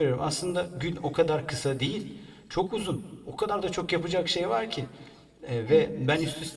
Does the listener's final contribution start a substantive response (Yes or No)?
No